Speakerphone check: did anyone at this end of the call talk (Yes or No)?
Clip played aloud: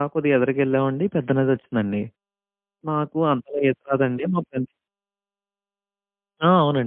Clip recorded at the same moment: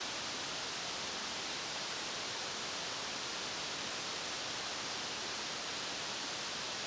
No